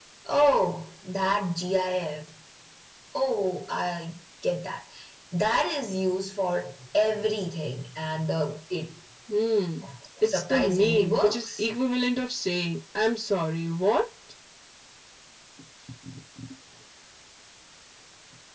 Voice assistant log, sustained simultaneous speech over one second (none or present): present